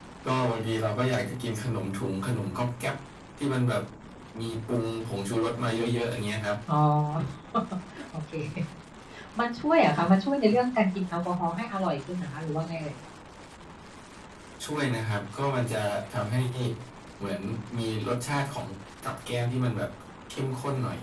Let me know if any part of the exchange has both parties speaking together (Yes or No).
No